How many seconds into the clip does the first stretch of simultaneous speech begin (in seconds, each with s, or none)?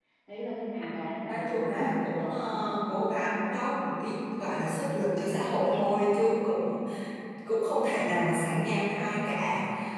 1.3 s